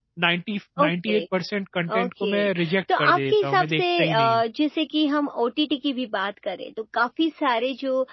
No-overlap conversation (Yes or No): No